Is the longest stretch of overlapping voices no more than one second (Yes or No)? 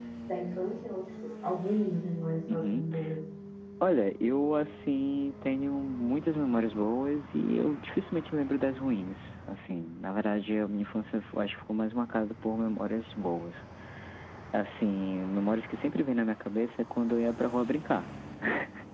Yes